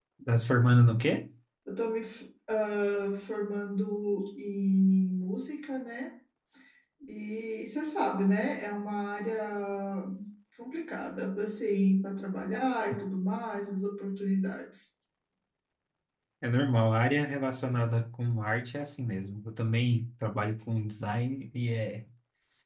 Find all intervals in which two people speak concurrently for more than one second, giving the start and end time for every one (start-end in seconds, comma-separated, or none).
none